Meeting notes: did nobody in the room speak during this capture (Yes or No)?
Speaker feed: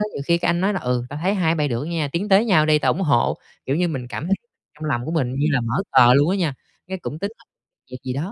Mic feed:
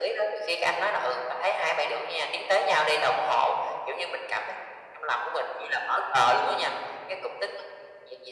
Yes